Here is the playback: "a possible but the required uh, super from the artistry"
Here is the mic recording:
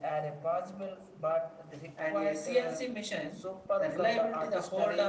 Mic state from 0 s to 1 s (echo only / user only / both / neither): echo only